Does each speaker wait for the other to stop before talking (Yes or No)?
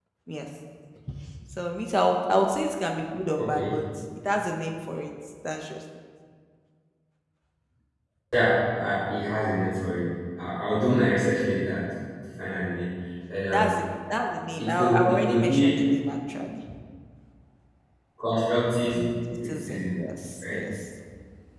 No